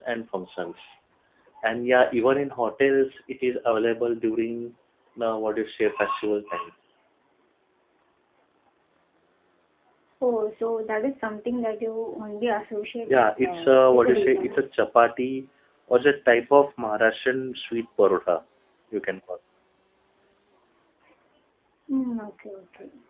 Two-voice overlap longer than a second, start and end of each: 13.1-14.8

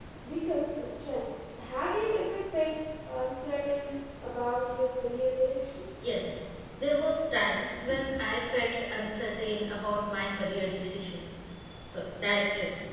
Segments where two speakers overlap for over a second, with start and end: none

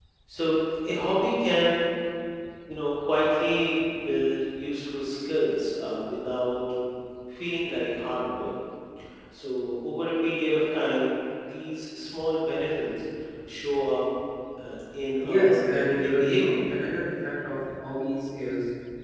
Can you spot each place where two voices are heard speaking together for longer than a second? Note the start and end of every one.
15.2-16.8

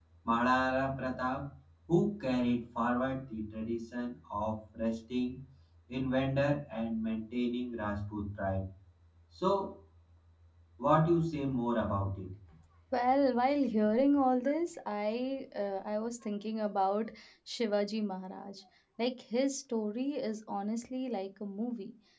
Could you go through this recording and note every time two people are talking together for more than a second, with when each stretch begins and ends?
none

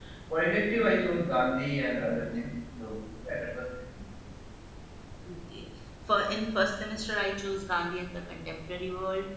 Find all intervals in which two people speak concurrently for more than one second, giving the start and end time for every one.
none

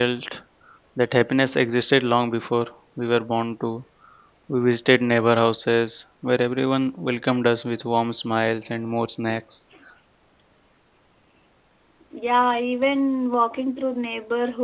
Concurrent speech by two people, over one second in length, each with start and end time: none

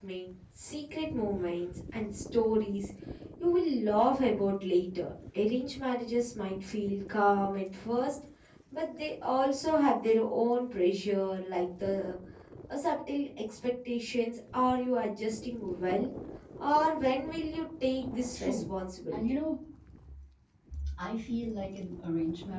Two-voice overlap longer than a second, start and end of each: none

